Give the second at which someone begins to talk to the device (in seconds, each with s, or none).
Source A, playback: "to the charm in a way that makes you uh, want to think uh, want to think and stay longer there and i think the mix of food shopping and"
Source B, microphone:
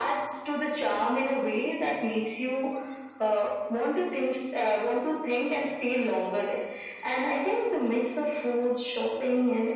none